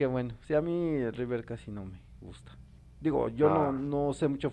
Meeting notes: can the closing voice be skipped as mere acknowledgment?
Yes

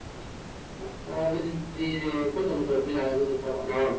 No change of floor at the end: No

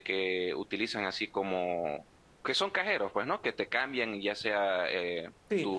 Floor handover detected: Yes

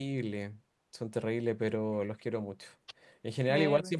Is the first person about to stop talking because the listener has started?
No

